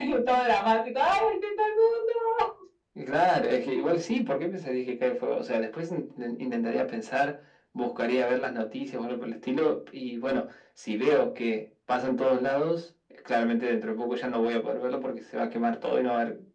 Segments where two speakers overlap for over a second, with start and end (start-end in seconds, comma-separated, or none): none